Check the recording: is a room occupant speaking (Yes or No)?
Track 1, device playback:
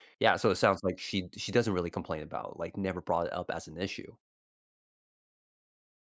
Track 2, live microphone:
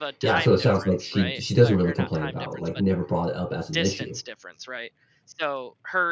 Yes